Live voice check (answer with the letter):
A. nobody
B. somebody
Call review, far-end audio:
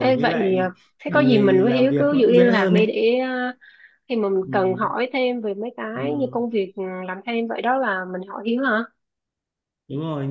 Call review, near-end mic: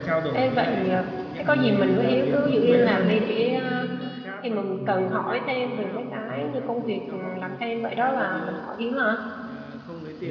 B